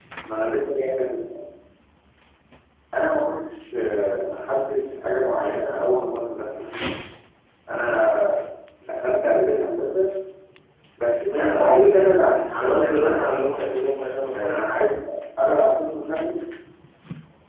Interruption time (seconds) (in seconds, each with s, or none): 11.2 s